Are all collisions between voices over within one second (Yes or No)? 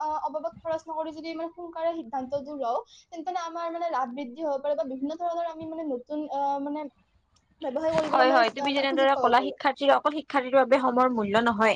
No